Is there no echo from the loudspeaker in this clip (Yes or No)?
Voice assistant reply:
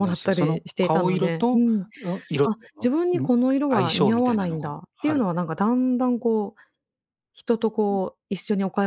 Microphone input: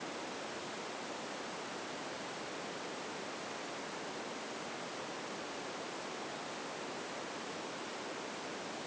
Yes